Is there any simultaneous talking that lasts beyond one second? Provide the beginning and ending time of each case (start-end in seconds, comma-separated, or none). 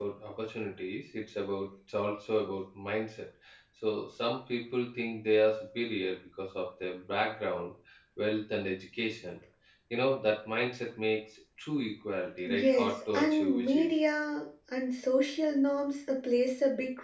12.5-13.9